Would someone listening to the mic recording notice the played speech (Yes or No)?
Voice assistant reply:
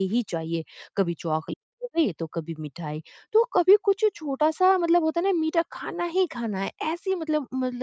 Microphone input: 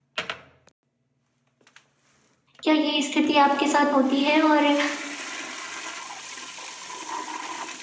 No